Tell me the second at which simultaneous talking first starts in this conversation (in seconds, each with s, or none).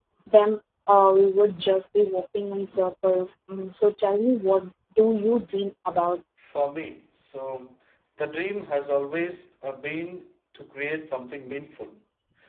none